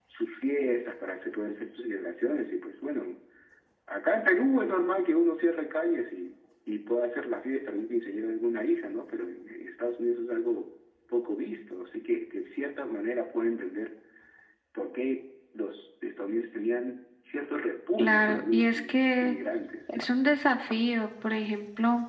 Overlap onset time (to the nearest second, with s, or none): 18 s